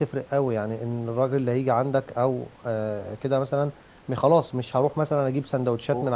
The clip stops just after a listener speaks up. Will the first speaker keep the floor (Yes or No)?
Yes